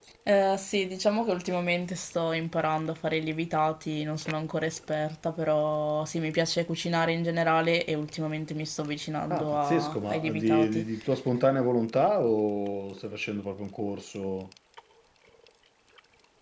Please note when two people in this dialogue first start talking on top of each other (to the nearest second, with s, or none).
9 s